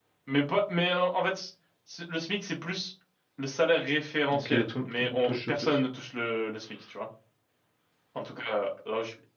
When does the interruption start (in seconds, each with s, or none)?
4.3 s